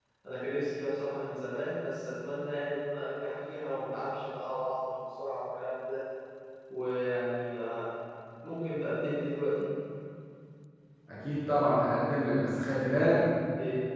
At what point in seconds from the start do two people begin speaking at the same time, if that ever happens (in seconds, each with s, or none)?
none